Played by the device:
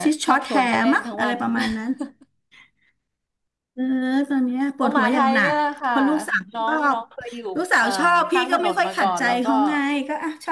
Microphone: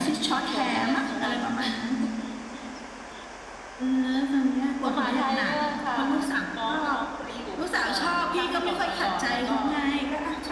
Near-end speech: none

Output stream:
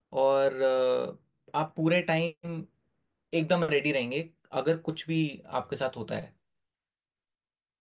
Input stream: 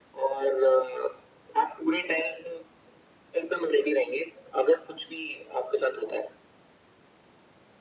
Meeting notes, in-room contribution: none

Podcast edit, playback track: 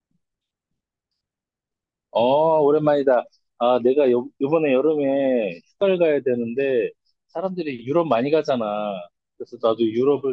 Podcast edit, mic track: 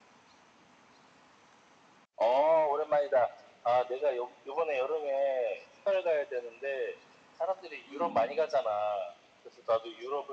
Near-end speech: present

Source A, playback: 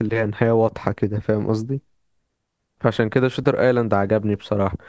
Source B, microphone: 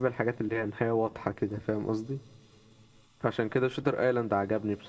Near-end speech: none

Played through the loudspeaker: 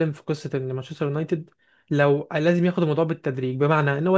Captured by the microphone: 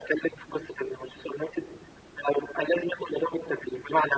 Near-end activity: none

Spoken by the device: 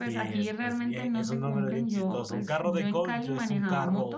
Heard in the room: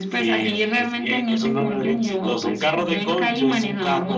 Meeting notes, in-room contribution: none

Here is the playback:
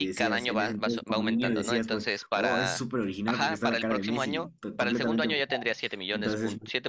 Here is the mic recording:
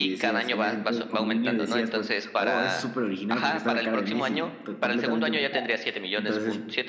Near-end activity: none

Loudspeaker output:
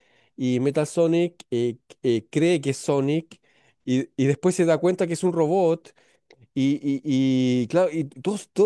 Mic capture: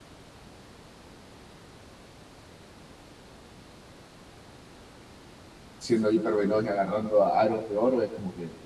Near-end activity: present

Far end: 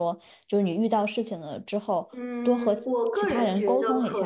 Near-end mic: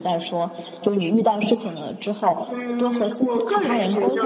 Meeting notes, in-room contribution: none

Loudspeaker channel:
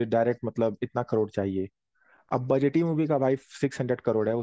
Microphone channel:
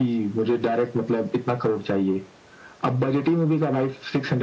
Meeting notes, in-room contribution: none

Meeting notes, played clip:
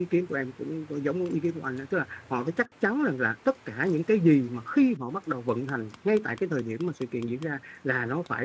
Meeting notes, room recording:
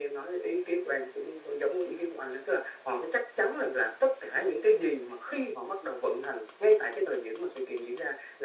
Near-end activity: none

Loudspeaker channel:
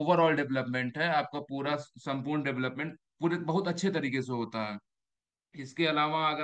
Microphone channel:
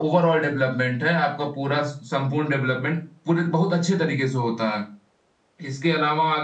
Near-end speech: none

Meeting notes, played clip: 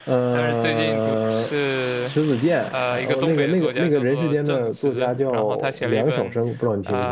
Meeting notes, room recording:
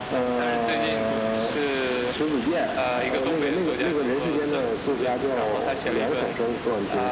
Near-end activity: none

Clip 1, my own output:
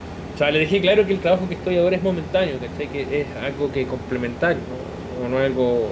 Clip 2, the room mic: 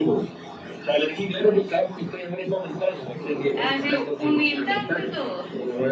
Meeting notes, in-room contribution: present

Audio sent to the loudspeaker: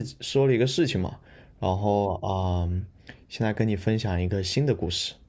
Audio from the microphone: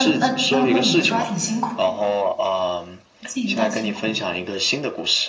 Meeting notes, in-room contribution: present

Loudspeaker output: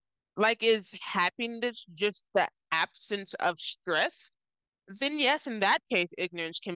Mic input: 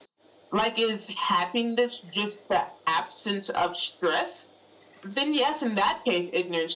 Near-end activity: none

